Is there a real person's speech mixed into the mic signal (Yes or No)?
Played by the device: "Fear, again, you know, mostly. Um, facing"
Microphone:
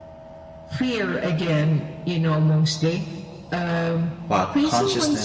Yes